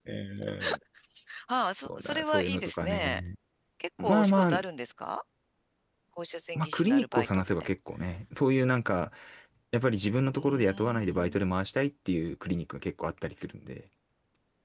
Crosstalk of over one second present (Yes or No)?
Yes